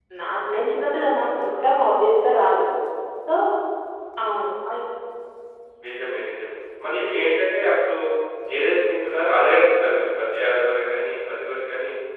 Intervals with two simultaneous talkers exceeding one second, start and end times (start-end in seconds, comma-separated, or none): none